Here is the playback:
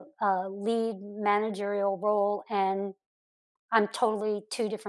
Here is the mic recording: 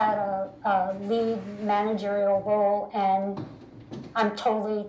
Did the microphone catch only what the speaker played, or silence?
Yes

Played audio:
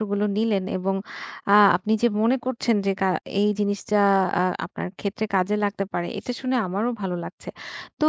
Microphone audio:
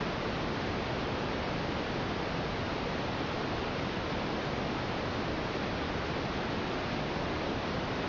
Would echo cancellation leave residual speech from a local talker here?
No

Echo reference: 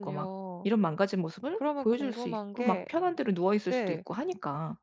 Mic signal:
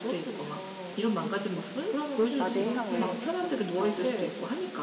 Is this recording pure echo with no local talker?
No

